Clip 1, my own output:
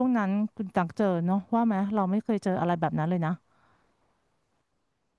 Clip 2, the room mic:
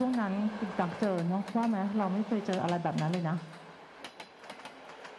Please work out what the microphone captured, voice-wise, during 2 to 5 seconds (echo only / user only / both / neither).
echo only